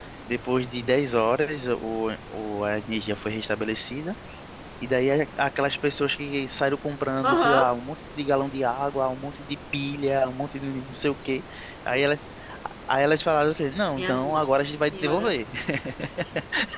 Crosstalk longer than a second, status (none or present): present